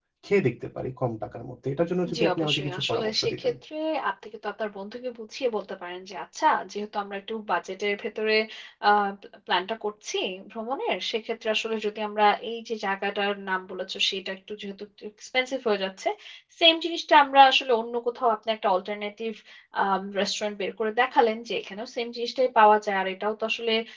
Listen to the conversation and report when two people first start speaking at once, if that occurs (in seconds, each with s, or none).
2.0 s